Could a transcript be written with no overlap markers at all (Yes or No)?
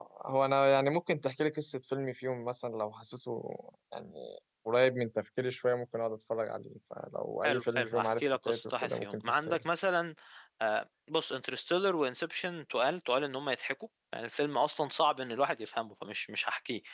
No